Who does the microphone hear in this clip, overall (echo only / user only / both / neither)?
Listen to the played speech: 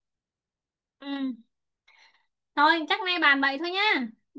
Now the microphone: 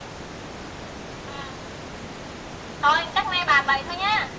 echo only